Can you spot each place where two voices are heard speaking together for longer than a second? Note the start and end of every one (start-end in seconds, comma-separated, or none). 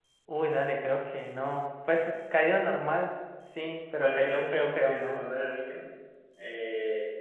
4.0-5.3